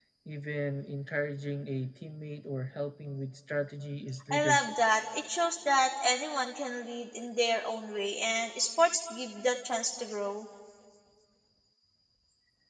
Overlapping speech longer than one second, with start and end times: none

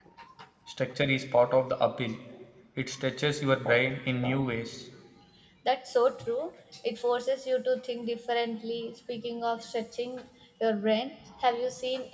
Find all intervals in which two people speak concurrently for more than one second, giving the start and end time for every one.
none

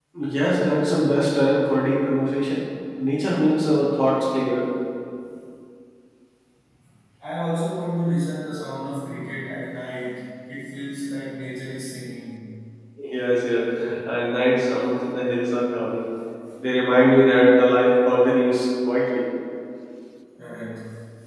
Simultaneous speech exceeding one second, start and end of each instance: none

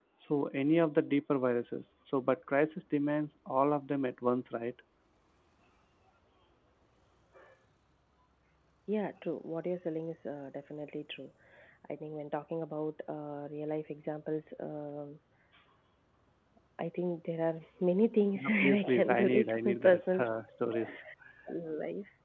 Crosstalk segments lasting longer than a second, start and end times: 18.4-20.2

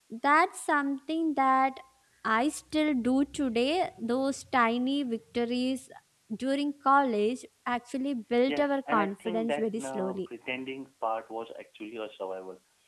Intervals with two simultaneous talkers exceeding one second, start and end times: 8.5-10.3

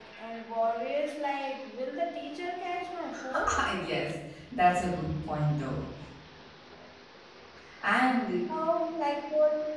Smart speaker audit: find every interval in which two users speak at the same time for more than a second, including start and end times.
none

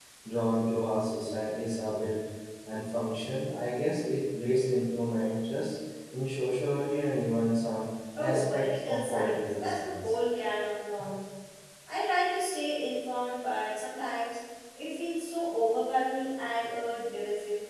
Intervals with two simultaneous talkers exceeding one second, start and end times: 8.2-10.1

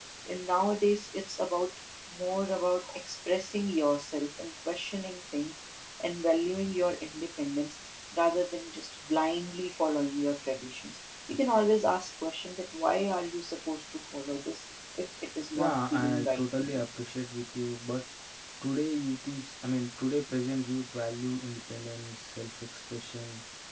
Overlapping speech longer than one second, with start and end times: 15.5-16.8

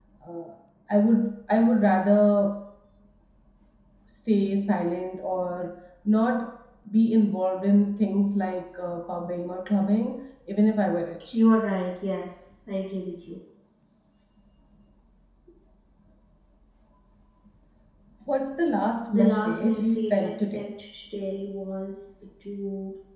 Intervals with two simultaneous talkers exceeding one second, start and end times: 19.1-20.7

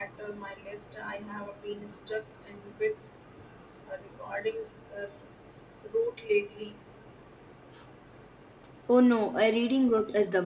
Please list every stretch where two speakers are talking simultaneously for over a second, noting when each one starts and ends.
none

